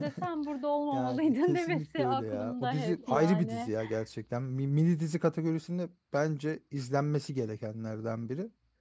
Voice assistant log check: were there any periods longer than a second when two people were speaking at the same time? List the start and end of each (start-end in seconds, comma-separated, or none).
0.9-3.7